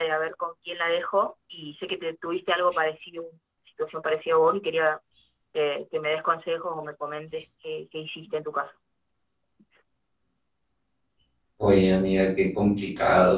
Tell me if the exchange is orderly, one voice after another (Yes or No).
Yes